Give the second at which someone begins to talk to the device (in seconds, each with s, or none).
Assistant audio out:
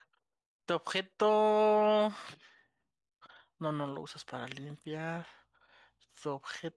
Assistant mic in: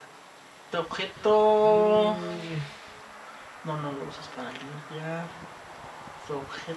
1.6 s